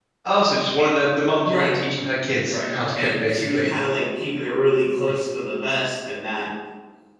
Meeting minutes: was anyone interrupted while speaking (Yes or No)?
Yes